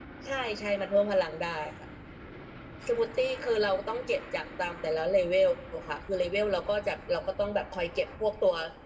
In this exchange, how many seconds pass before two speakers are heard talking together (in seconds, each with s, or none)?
none